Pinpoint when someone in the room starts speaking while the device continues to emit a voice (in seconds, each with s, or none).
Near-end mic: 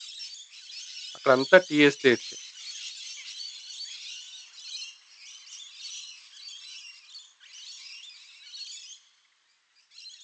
1.2 s